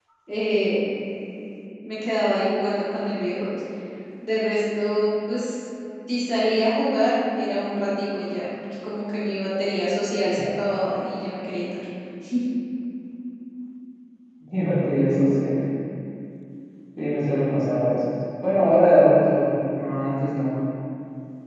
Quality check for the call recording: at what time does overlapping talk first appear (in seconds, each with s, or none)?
none